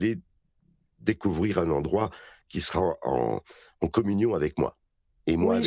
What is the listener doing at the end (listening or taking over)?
taking over